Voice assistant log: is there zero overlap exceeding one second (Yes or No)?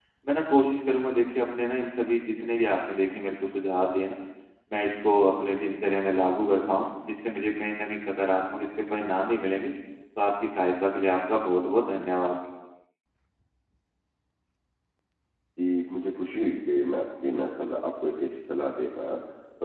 Yes